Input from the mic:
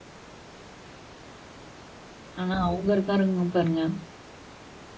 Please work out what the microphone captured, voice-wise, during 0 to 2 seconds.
neither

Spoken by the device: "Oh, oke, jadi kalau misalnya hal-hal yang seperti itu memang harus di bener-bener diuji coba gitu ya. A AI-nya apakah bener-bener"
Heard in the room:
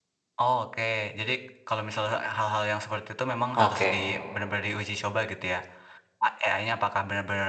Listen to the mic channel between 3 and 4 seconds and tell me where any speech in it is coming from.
both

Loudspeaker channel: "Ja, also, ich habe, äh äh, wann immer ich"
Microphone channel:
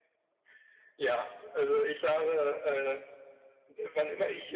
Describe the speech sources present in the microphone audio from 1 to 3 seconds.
echo only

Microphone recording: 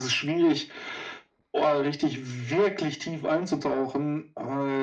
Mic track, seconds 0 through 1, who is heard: echo only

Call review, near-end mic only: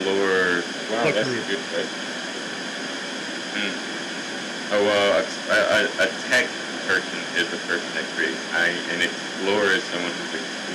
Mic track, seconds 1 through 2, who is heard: both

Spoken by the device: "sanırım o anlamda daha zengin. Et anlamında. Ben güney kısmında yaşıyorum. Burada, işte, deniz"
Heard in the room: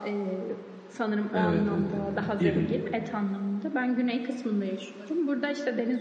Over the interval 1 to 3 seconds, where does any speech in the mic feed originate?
both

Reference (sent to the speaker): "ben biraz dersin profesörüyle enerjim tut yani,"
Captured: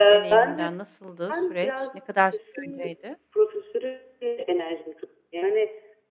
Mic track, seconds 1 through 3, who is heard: both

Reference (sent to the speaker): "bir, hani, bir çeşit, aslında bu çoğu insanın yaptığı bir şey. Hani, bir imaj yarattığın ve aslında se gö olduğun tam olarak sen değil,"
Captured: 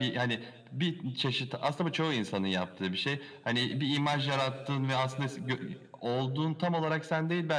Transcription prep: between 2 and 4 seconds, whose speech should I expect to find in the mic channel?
echo only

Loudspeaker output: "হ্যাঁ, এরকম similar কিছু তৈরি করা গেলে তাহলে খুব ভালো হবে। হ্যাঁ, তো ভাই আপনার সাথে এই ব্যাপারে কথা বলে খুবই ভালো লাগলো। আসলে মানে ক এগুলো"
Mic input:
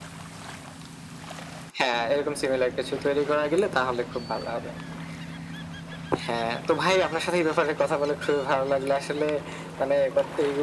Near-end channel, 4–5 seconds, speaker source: echo only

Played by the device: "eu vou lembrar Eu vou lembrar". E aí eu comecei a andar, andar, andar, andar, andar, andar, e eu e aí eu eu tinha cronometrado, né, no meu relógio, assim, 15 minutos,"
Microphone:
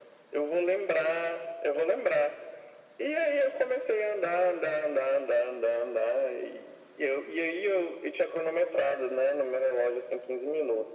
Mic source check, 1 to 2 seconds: echo only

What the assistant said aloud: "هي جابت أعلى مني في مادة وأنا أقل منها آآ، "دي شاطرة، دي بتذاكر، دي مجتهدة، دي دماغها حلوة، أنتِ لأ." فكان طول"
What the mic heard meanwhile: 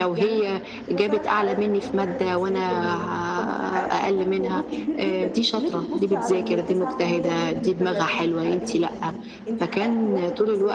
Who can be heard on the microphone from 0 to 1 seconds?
both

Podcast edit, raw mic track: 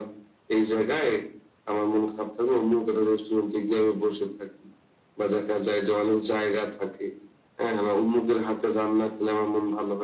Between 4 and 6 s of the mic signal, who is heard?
echo only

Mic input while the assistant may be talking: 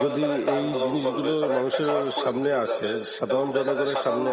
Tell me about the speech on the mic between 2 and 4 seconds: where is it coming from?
both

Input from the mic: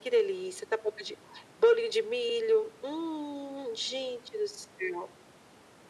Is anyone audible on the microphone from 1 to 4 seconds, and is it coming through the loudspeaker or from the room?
echo only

